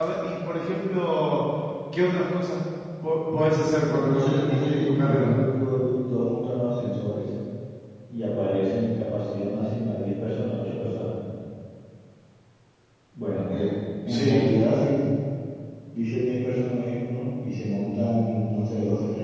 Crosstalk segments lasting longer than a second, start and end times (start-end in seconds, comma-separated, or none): 3.9-5.3